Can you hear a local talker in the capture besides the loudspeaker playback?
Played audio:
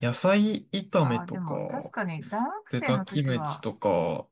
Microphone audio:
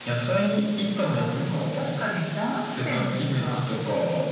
No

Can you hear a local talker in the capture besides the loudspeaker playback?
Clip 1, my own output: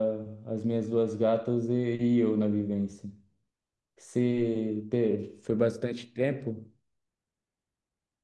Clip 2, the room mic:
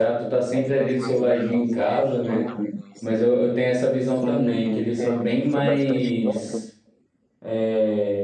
Yes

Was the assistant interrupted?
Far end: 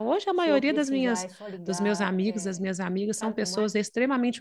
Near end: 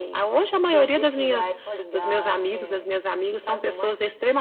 No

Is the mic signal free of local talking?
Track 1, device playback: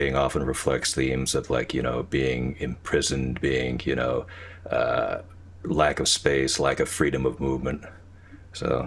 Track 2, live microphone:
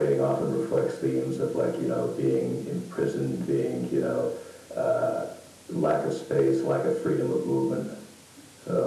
Yes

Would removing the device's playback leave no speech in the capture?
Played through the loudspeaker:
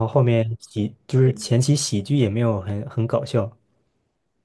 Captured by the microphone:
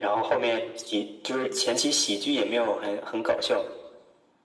Yes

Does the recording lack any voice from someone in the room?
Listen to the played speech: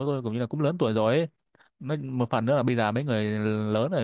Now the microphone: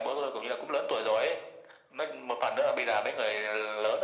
Yes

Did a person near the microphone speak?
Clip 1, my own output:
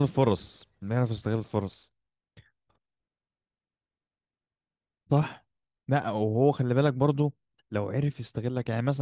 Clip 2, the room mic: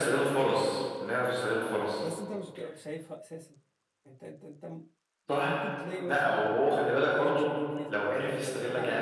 Yes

